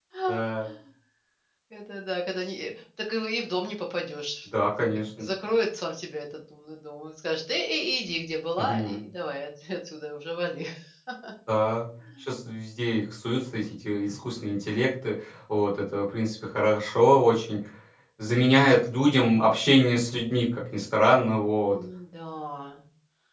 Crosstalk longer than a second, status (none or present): none